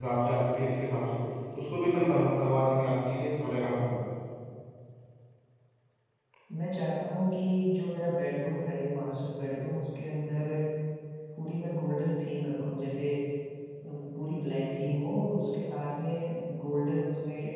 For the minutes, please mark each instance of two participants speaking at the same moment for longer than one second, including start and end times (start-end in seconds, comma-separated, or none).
none